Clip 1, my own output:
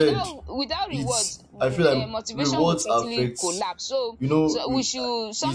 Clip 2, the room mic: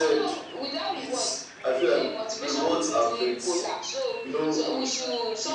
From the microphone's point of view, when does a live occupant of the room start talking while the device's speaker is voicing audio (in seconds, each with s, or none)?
none